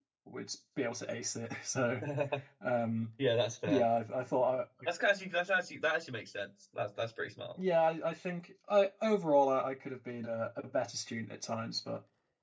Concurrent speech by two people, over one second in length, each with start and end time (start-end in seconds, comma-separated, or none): none